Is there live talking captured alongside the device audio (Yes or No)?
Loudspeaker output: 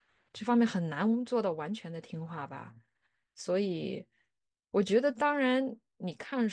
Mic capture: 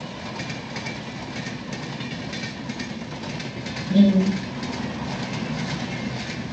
Yes